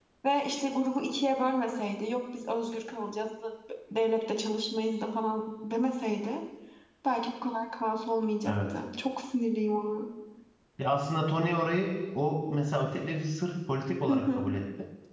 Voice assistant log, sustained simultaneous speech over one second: none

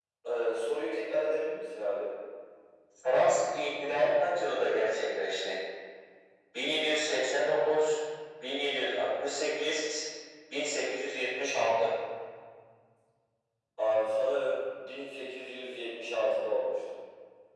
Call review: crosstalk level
none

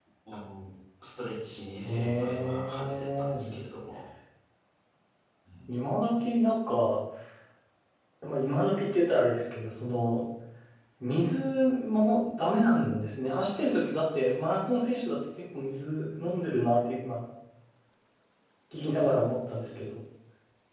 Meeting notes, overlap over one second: present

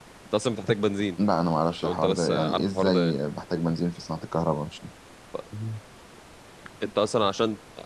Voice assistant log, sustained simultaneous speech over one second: present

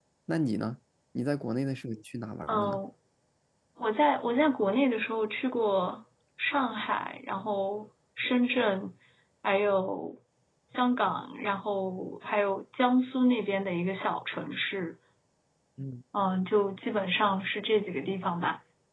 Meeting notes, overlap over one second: none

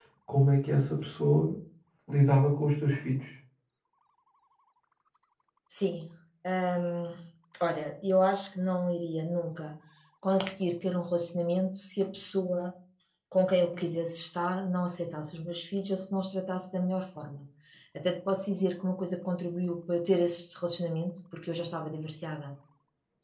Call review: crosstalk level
none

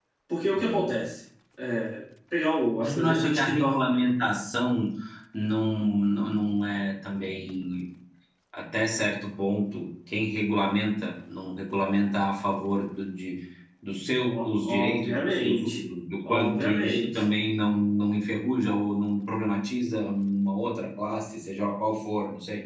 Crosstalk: present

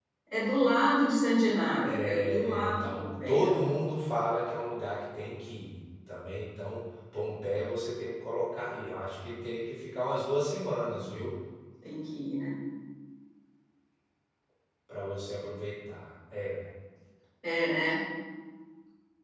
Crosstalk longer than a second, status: present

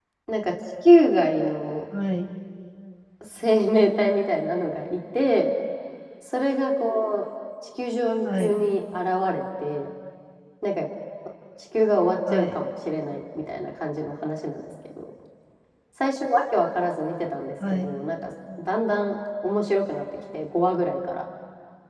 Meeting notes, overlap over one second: none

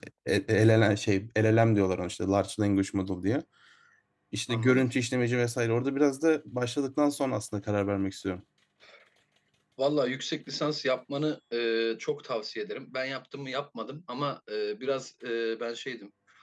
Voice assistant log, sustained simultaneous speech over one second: none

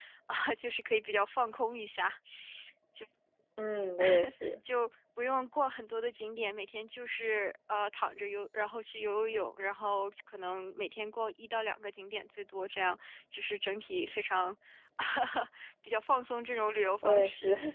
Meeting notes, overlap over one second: none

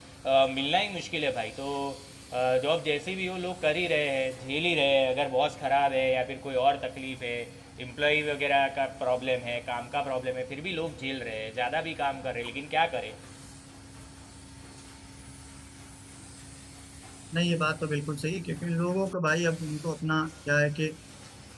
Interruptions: none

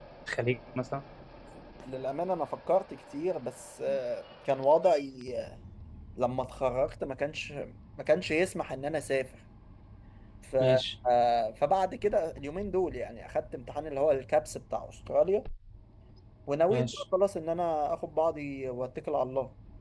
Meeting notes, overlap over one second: none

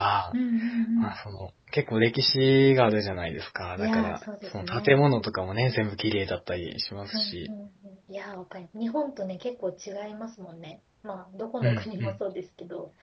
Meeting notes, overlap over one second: present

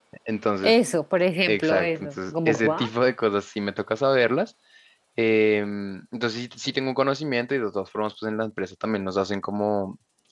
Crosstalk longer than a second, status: present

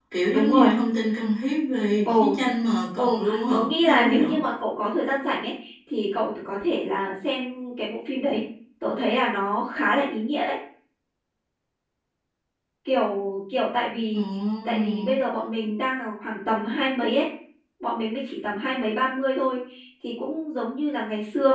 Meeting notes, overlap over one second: present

